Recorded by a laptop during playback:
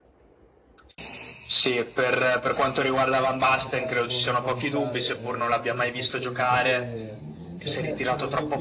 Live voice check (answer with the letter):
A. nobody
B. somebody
B